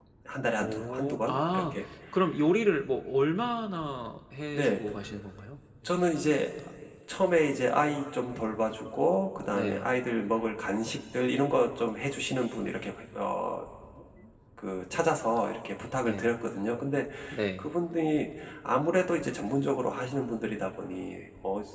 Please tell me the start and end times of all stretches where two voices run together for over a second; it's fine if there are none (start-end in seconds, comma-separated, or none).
0.6-1.8